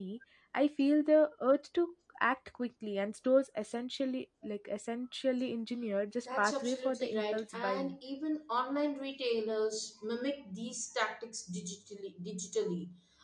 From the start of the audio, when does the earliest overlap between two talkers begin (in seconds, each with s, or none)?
6.3 s